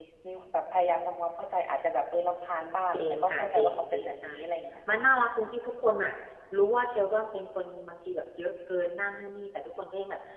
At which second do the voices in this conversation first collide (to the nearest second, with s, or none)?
3 s